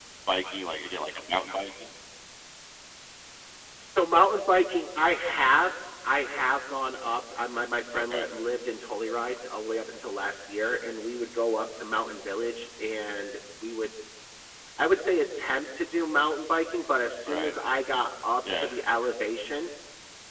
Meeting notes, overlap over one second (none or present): none